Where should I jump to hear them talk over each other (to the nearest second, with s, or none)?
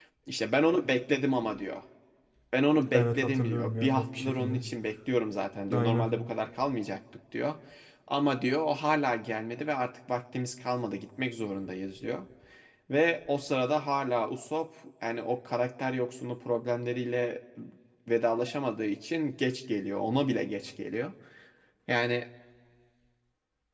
3 s